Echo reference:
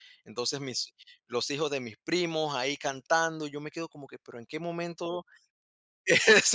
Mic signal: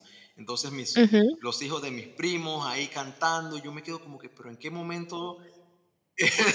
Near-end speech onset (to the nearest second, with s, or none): 1 s